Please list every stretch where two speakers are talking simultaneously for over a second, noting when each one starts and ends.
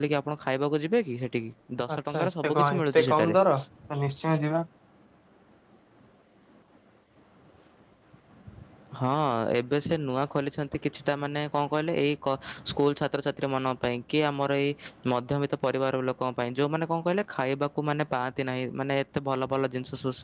1.9-3.4

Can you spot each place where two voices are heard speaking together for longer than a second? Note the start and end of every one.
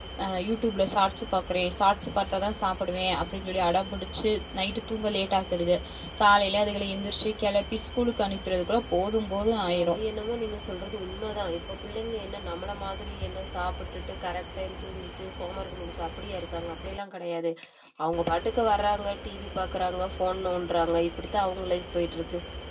none

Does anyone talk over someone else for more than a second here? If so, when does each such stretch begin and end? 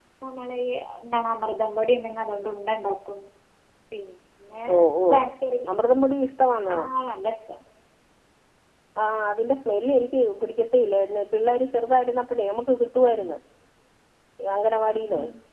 none

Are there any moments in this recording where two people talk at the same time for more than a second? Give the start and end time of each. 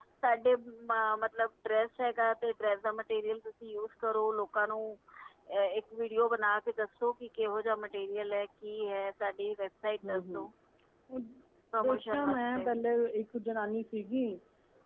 none

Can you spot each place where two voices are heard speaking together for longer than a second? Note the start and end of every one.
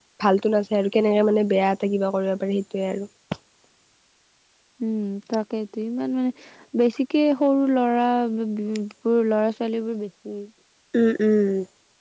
none

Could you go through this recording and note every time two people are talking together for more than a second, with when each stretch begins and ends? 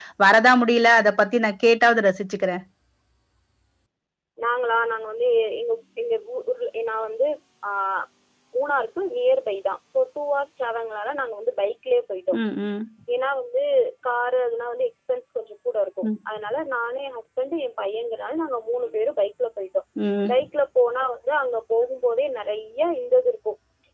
none

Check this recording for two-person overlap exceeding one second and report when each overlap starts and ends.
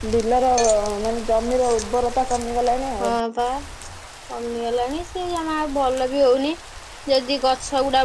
none

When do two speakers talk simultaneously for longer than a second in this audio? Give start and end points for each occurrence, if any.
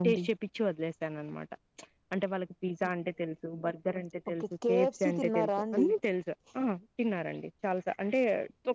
4.4-5.8

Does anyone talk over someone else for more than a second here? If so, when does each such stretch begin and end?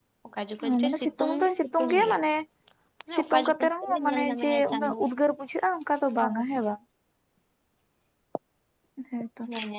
0.7-2.2, 3.2-5.0

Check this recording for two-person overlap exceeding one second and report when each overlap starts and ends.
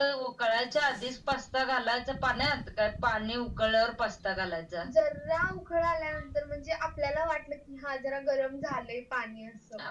none

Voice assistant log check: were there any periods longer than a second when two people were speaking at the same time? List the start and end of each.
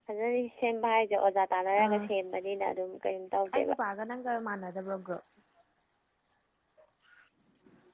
none

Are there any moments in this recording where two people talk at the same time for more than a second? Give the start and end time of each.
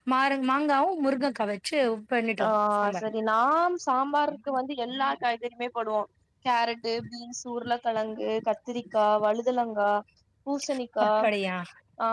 none

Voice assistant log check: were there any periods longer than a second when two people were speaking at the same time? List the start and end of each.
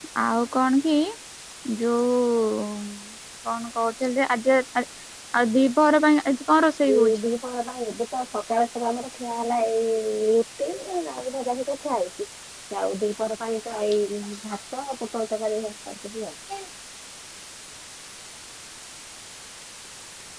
none

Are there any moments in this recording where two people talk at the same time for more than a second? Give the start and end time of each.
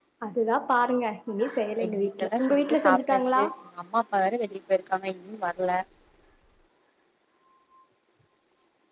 1.8-3.4

